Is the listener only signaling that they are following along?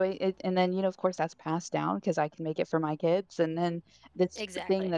Yes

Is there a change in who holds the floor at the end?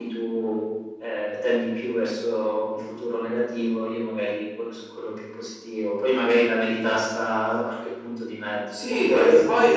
Yes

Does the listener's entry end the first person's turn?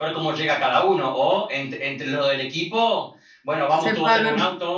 No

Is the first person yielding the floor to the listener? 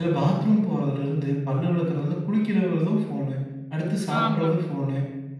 No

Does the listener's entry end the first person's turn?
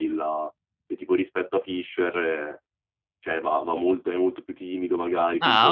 Yes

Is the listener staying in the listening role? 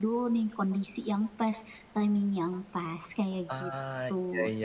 No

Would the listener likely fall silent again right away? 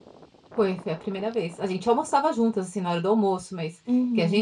Yes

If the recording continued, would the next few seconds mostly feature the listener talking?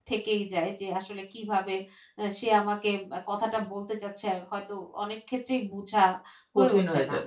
Yes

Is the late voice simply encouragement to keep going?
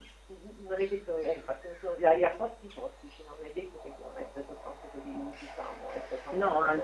Yes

